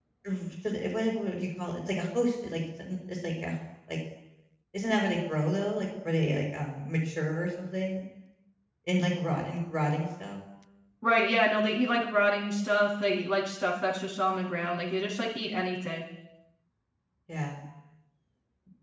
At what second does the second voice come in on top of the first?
none

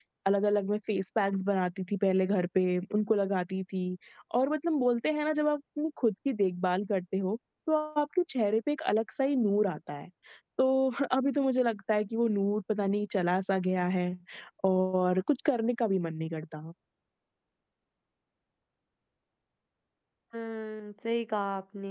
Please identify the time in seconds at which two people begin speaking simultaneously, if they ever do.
none

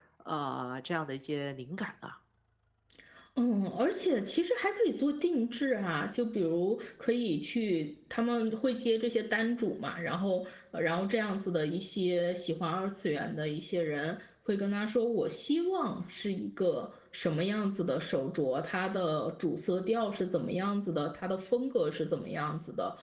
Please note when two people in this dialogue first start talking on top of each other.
none

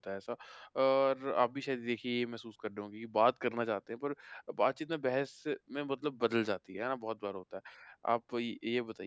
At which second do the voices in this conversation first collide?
none

